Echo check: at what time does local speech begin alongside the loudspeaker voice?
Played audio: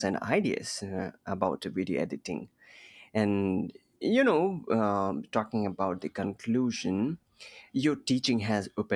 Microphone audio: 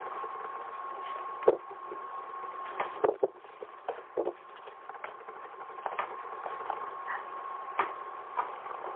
none

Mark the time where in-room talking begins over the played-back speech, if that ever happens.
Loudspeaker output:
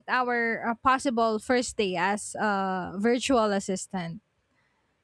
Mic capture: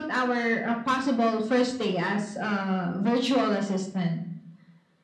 none

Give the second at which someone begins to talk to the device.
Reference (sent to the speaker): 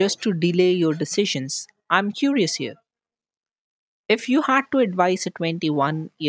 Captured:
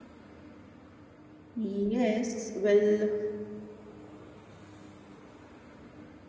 1.5 s

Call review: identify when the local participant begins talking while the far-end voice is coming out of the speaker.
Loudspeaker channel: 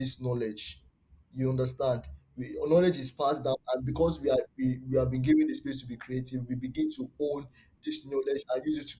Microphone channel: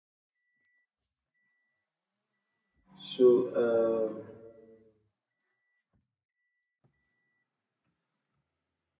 3.0 s

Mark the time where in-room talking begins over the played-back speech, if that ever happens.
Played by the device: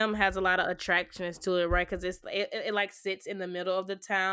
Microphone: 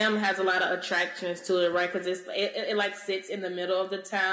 none

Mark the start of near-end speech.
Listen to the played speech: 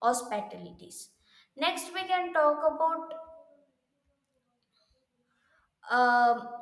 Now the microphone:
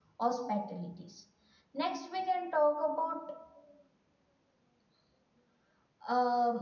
none

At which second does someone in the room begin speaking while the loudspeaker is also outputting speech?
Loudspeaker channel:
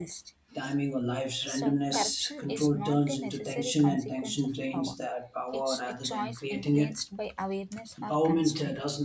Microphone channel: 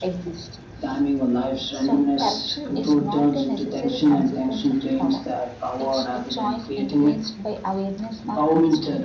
none

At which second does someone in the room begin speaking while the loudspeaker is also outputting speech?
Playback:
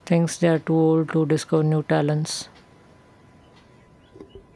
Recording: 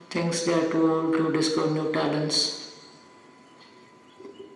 none

